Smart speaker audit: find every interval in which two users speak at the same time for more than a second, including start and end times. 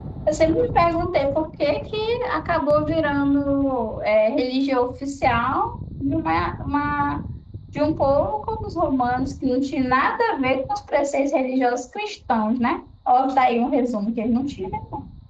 none

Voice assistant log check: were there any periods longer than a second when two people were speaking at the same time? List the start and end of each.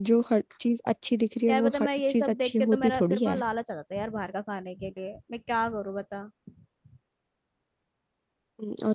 1.5-3.4

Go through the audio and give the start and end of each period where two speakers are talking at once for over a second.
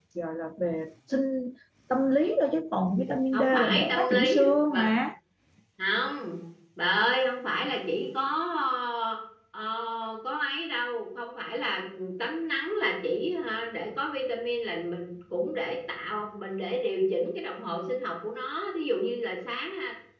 3.3-4.9

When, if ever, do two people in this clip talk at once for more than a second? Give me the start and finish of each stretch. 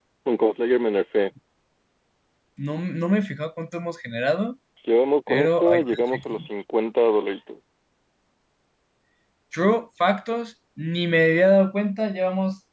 5.3-6.5

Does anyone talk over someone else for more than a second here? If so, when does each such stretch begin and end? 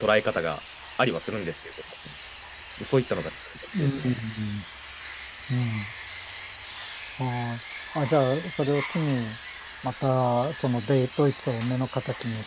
none

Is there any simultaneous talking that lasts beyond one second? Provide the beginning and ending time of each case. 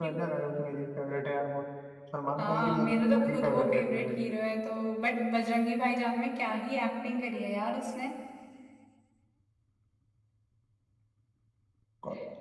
2.4-4.2

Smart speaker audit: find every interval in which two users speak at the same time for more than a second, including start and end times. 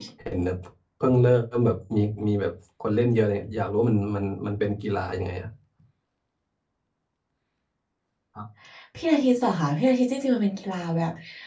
none

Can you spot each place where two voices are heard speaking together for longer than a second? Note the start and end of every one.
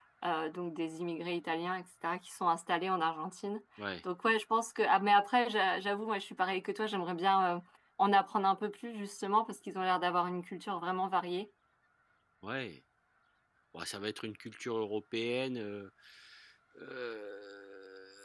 none

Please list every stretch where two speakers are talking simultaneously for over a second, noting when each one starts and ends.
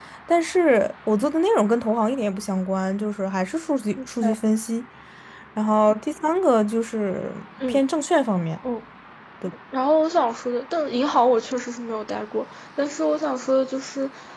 none

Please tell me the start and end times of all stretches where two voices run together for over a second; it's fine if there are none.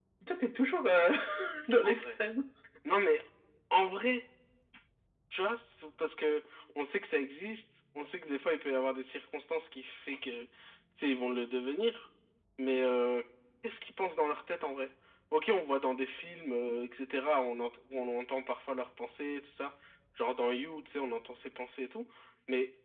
none

